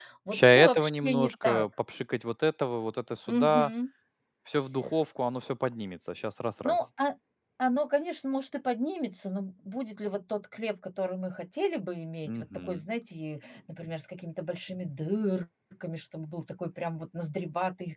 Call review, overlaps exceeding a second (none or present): present